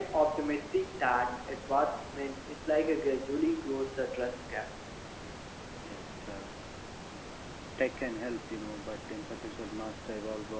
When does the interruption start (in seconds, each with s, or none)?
none